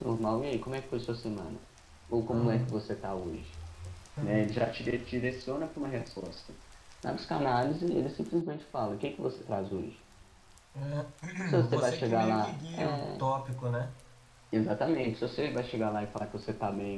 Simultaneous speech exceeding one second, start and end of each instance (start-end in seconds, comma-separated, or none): 11.7-13.3